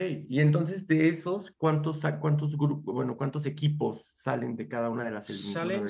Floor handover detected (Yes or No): Yes